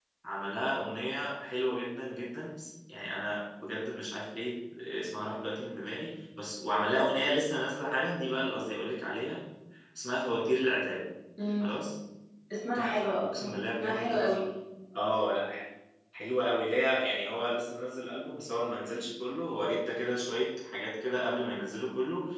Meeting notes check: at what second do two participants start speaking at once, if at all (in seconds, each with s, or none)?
12.8 s